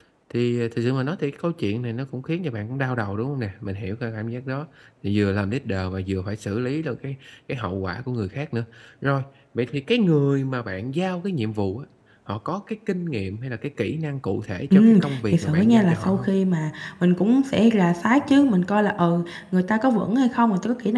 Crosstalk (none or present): present